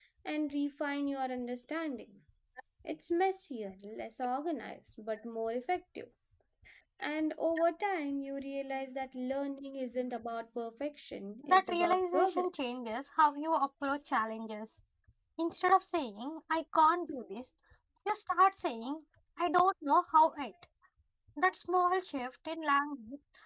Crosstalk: present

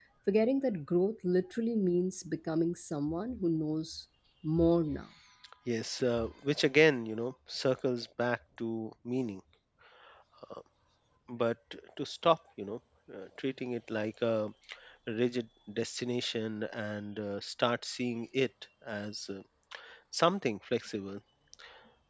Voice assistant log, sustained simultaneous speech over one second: none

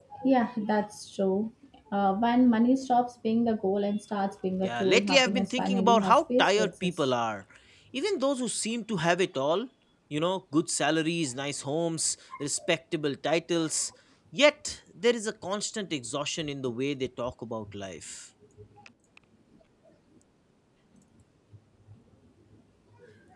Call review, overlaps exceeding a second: present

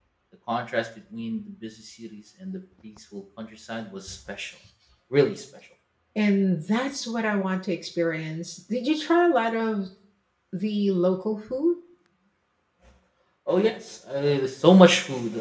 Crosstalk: none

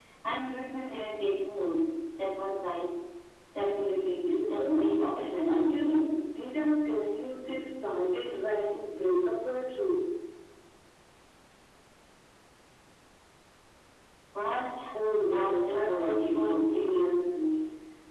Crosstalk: present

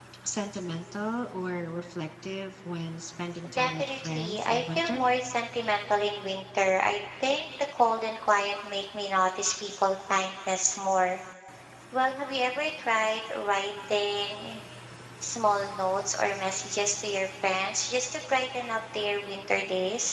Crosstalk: present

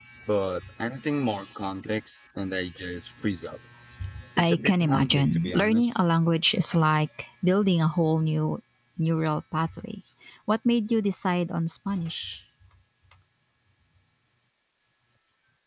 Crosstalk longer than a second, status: present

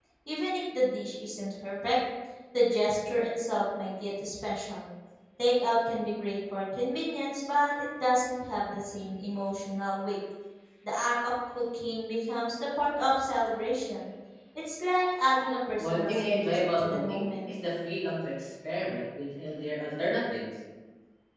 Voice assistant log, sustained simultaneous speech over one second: present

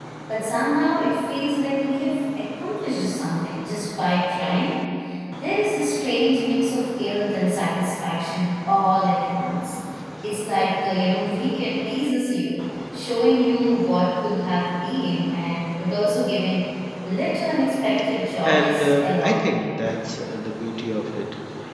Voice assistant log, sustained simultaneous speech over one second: present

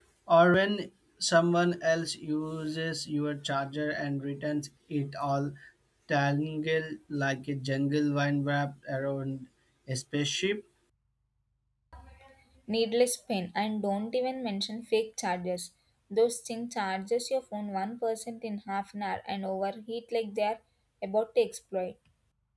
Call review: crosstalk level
none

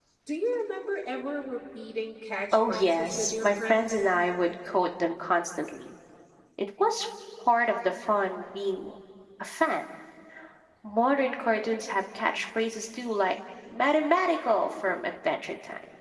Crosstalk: present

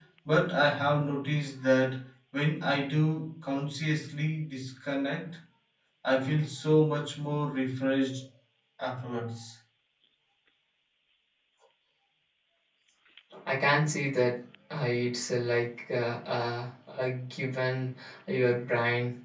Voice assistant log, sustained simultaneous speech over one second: none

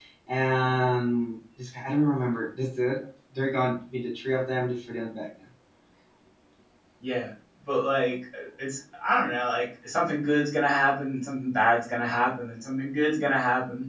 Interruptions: none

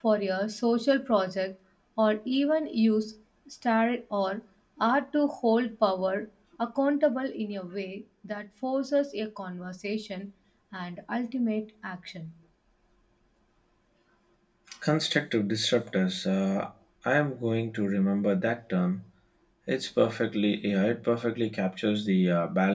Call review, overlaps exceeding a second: none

